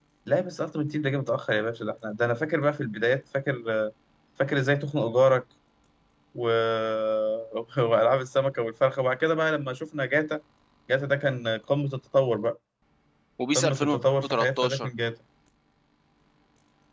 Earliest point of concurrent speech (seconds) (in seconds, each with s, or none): 13.6 s